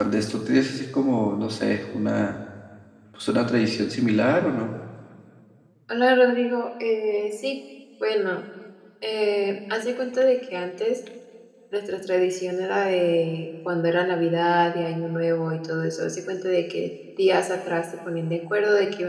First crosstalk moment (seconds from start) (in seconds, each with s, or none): none